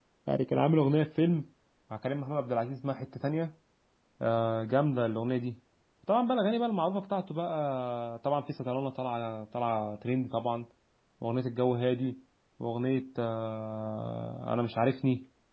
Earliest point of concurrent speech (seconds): none

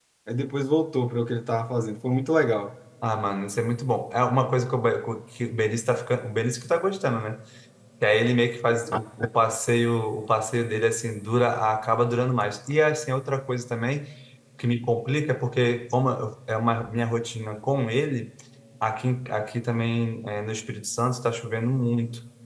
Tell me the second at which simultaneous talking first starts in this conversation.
none

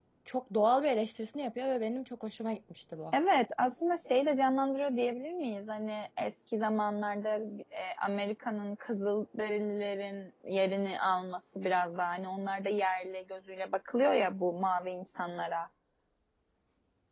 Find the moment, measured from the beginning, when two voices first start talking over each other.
none

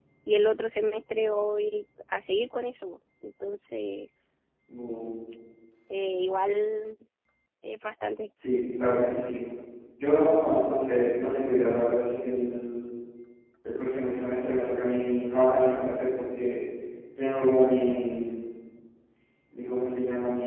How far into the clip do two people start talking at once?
none

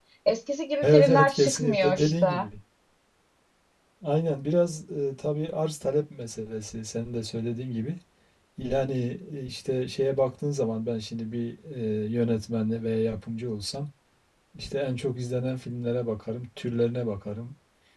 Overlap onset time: 0.8 s

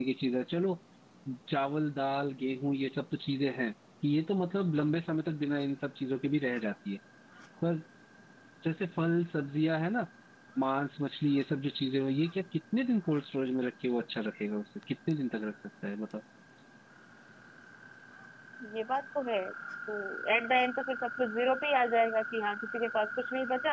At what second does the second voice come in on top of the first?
none

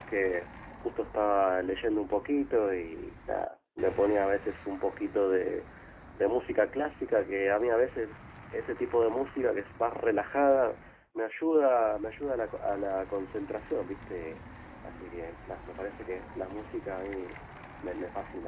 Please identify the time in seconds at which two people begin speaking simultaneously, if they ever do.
none

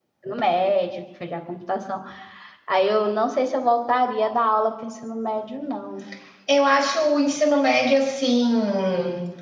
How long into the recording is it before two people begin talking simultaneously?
none

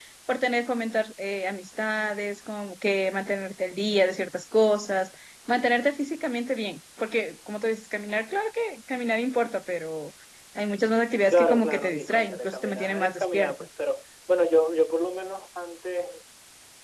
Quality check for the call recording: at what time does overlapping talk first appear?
11.3 s

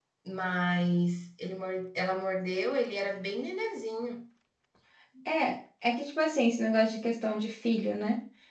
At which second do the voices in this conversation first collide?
none

